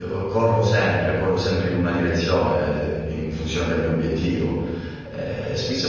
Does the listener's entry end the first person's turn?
No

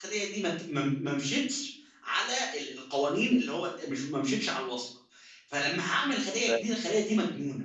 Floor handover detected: No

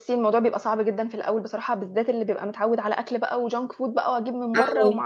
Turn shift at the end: No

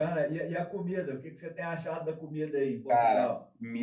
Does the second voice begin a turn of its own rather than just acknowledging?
Yes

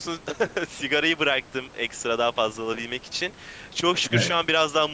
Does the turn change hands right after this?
No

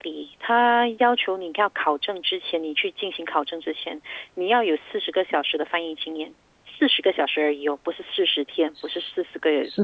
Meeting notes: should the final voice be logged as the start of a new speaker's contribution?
Yes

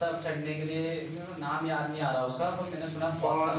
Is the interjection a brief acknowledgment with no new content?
No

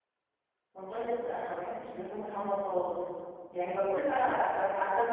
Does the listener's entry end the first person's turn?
No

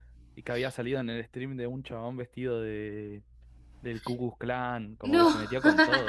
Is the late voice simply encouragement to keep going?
Yes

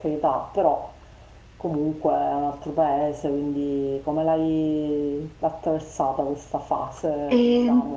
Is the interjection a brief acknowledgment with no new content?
No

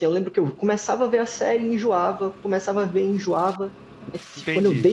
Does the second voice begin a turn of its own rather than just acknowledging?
No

